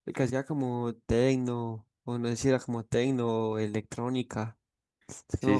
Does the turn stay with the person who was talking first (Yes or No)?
No